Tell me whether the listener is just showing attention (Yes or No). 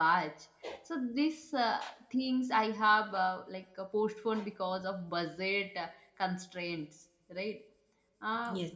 Yes